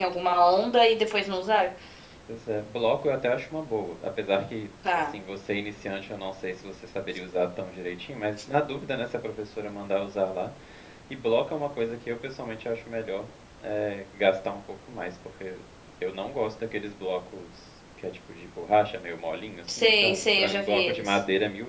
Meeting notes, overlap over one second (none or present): present